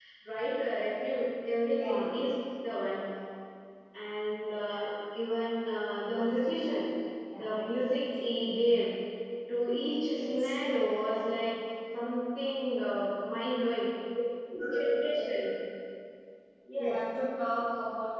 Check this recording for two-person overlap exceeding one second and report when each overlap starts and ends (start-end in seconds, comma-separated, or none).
none